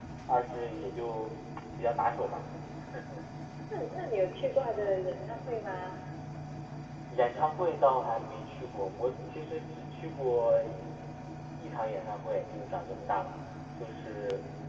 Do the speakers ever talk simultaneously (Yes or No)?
No